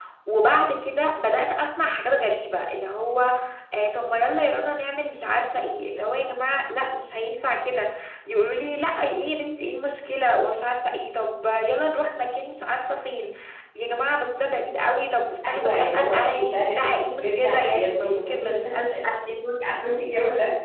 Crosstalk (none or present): present